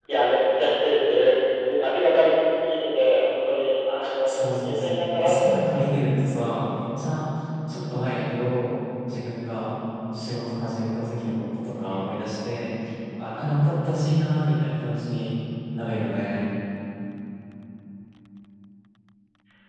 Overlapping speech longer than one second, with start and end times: 4.3-5.9

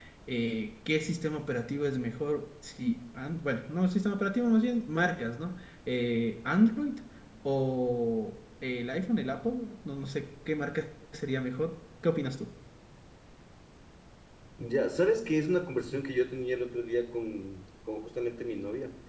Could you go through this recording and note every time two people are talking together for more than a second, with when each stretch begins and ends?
none

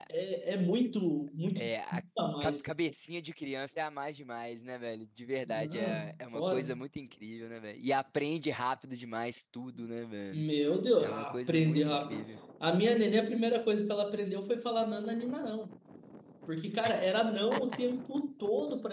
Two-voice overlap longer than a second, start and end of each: 5.4-6.8, 11.0-12.2

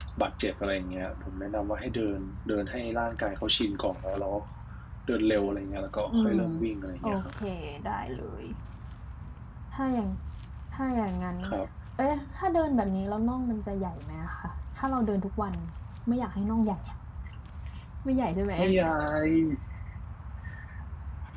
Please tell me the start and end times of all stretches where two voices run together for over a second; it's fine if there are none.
none

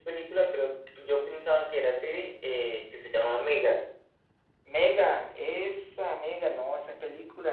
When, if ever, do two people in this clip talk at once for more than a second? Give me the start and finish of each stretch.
none

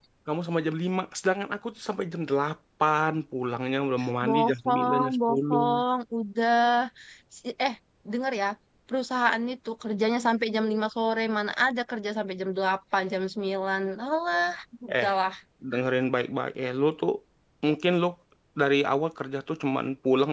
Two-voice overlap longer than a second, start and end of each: 4.2-5.7

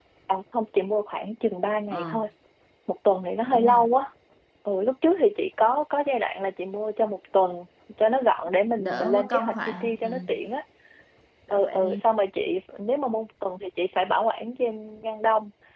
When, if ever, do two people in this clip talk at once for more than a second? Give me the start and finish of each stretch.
8.8-10.1

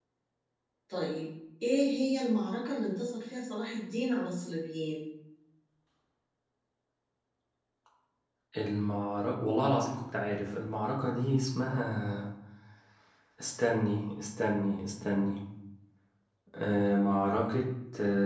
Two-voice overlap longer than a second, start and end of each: none

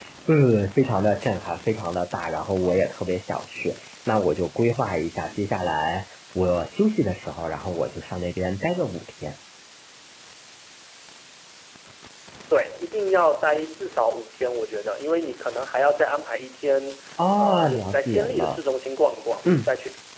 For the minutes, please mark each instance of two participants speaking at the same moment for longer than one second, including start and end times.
17.4-18.6

